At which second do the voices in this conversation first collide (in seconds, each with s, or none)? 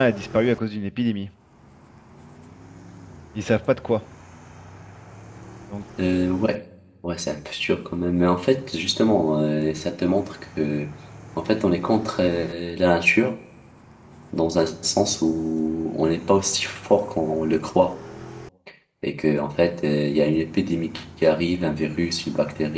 none